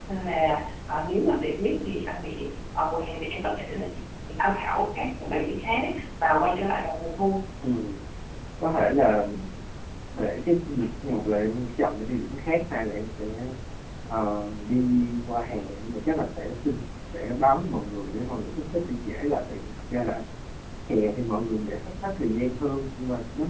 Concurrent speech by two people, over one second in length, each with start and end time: none

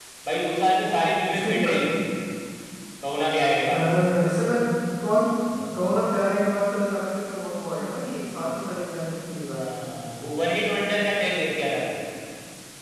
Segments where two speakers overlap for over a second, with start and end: none

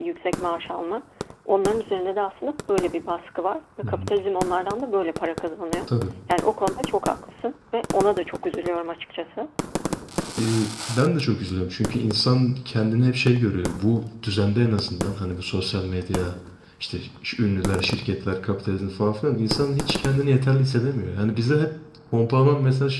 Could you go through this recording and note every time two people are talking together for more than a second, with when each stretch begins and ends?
none

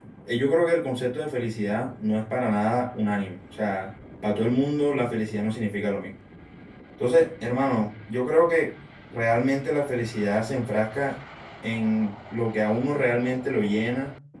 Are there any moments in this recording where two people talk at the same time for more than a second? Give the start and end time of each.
none

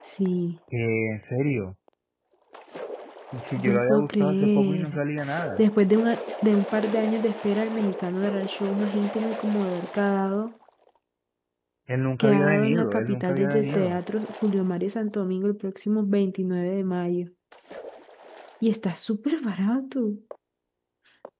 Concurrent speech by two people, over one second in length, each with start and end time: 3.5-5.0, 12.2-14.0

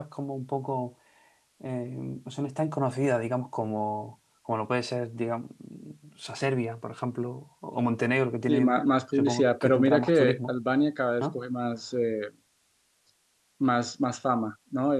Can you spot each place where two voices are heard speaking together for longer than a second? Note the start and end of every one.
8.5-10.5

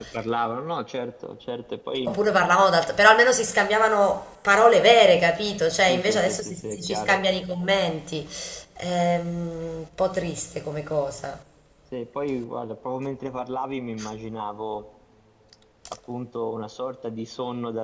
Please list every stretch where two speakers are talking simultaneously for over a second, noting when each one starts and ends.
5.9-7.2

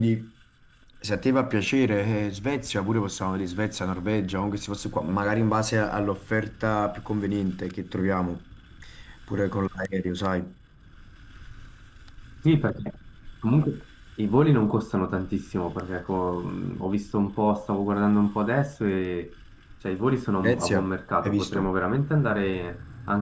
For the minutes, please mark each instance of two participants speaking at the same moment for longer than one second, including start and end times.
none

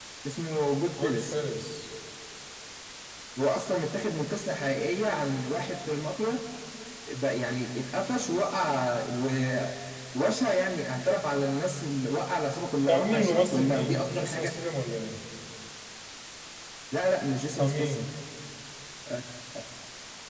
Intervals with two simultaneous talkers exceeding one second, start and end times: 12.9-14.5

